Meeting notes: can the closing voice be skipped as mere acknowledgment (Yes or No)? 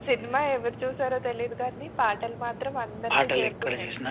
No